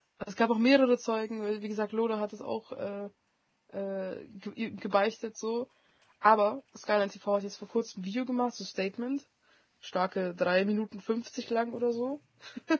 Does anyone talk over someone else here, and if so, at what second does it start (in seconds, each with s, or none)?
none